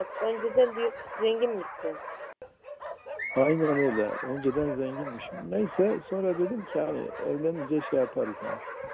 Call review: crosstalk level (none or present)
none